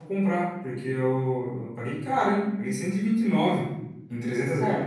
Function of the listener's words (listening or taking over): taking over